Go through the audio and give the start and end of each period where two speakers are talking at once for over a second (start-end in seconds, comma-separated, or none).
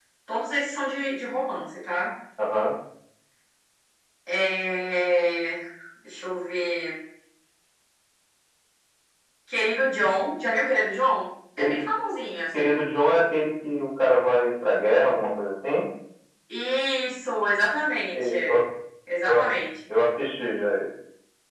none